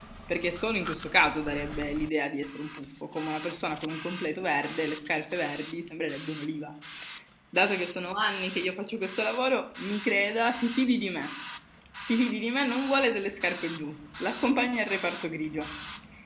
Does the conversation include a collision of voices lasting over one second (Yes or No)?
No